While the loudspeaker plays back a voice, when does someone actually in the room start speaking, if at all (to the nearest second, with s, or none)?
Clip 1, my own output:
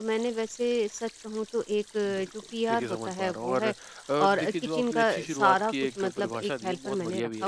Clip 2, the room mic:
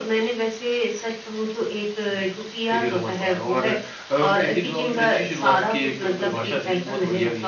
none